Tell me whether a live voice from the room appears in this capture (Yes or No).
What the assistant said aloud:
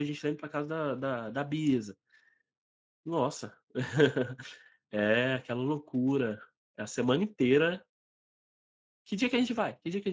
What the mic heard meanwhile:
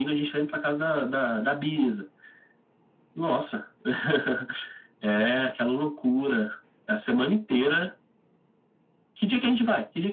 No